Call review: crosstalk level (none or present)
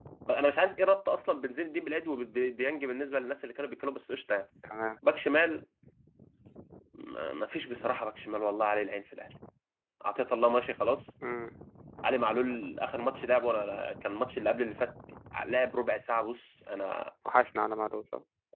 none